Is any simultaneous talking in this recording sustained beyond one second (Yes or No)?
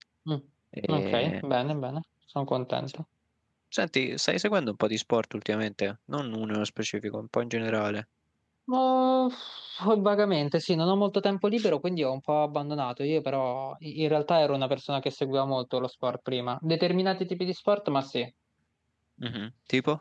No